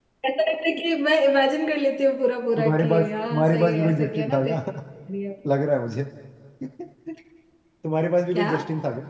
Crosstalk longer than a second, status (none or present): present